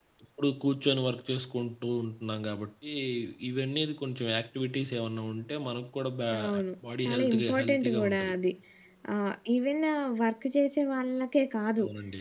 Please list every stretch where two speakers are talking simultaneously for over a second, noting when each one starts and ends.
7.0-8.3

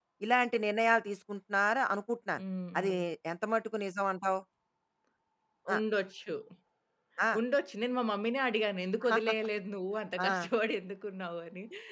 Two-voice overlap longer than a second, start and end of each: none

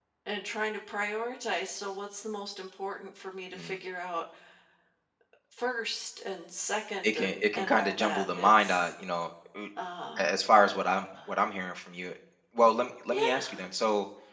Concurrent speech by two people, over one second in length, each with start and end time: 7.0-8.9

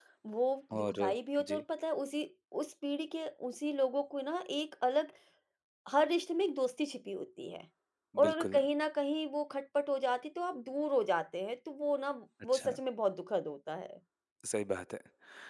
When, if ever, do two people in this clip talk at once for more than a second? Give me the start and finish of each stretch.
none

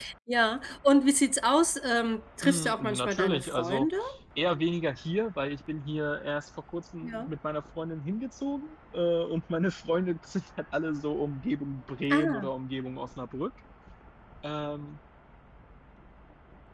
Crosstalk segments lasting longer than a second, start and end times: 2.4-3.9

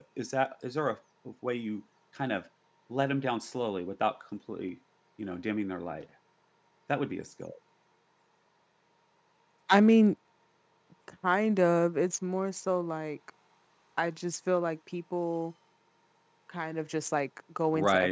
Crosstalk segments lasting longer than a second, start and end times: none

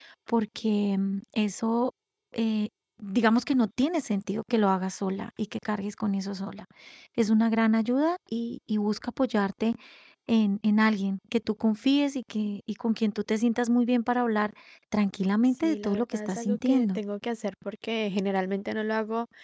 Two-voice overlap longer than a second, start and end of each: 15.6-17.0

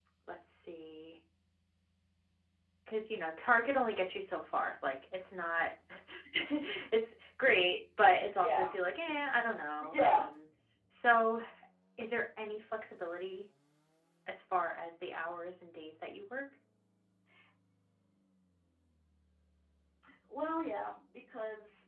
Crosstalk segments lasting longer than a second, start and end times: none

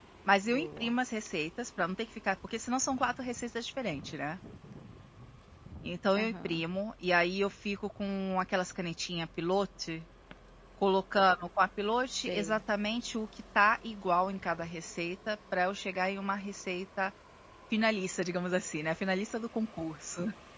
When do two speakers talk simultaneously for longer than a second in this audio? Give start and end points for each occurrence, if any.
none

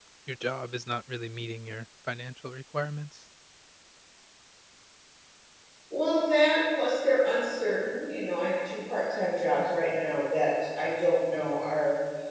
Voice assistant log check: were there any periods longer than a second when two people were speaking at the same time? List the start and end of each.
none

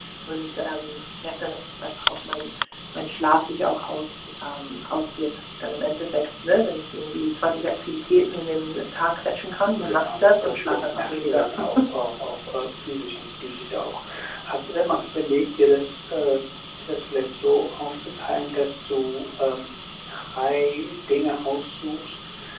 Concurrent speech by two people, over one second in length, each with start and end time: 9.8-11.4

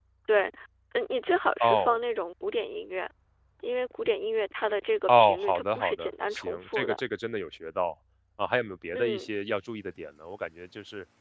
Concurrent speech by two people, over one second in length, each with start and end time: 5.1-7.0

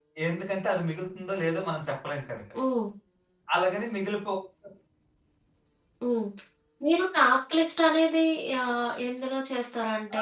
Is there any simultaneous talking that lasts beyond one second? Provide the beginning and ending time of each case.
none

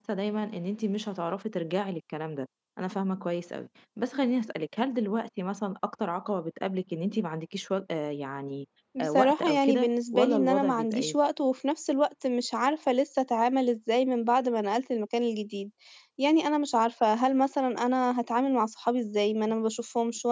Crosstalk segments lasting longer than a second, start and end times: 9.0-11.2

